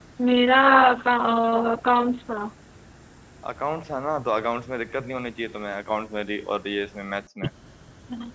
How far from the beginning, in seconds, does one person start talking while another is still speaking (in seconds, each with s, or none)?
none